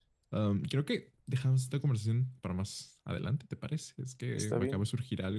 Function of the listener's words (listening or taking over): listening